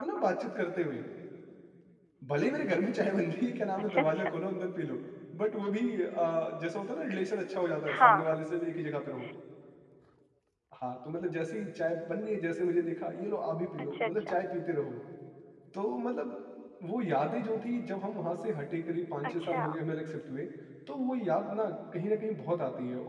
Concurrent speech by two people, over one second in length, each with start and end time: none

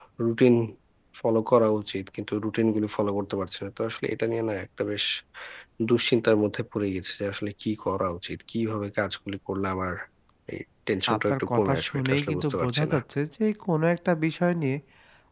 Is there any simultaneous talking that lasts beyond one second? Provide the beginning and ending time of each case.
11.1-13.0

